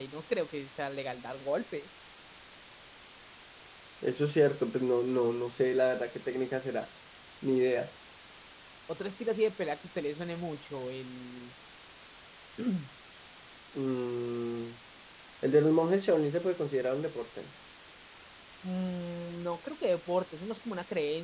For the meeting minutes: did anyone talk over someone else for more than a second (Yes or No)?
No